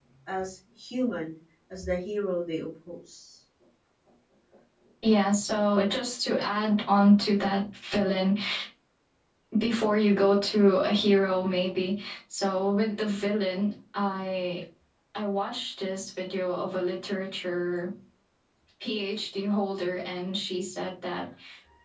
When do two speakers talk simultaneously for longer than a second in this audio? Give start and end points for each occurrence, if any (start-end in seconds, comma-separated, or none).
none